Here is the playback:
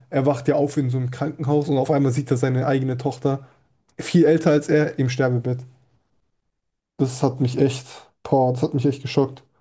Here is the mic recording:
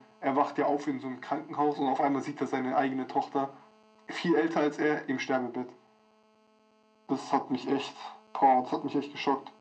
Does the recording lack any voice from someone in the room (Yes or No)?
Yes